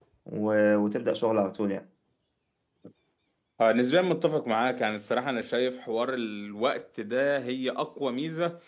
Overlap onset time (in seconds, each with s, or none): none